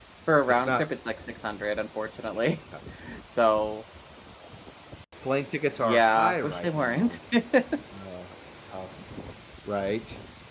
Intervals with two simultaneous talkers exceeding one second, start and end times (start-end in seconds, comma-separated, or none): 5.8-7.2